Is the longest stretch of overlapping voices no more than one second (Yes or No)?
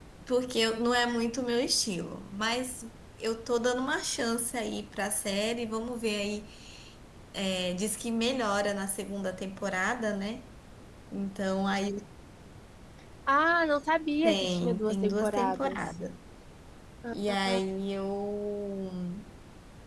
No